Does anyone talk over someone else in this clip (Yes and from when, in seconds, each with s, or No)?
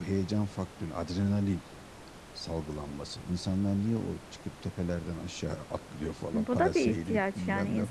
Yes, from 6.3 s